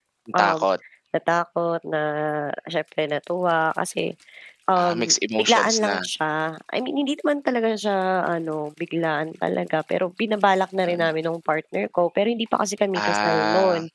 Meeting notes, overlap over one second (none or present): present